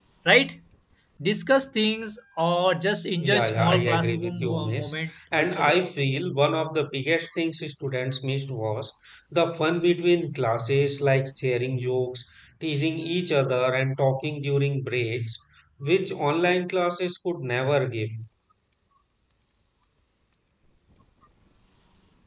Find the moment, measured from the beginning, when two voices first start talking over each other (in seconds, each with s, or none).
3.2 s